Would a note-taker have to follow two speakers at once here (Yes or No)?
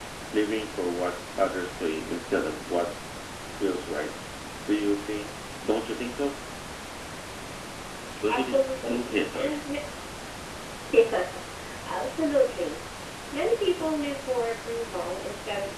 Yes